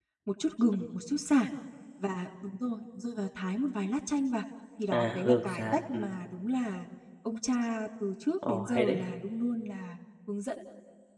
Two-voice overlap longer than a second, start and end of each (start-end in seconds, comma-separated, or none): 4.9-6.1